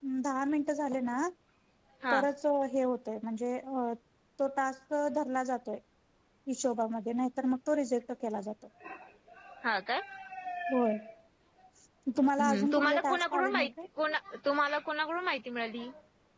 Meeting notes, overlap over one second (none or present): present